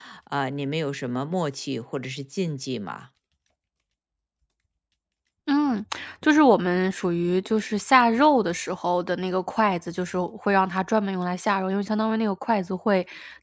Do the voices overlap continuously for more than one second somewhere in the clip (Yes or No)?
No